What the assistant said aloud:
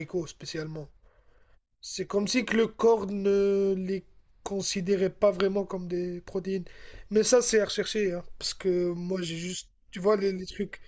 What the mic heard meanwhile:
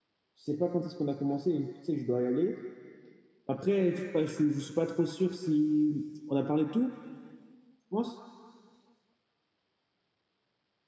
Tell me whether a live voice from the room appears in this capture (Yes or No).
Yes